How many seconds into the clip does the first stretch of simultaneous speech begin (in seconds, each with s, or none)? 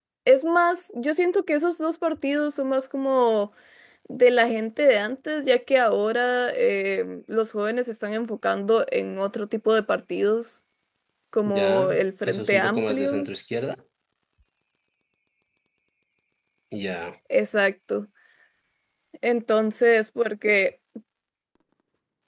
11.4 s